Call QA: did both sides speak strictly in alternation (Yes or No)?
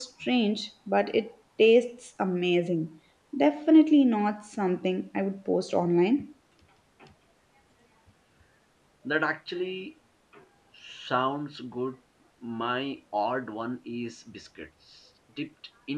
Yes